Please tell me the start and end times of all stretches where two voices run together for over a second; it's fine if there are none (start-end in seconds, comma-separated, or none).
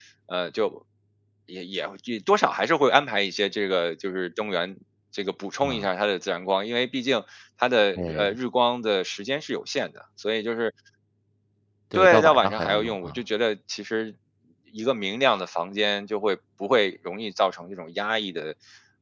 11.9-13.2